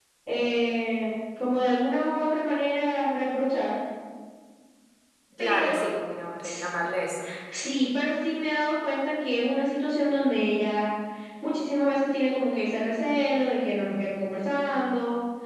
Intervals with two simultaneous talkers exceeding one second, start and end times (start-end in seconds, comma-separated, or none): none